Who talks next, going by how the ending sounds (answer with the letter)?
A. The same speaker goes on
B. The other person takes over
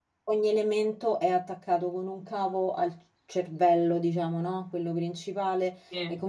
A